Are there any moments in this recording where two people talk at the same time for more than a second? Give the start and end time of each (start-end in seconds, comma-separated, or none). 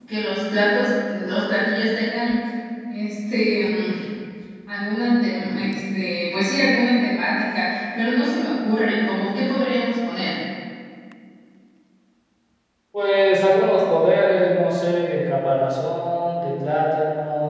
none